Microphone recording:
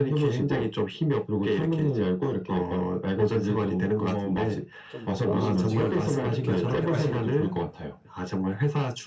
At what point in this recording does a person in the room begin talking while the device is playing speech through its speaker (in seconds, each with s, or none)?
4.9 s